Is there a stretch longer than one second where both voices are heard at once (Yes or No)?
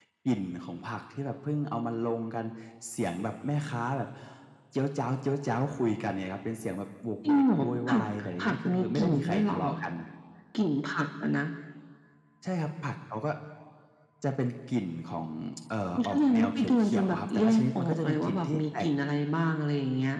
Yes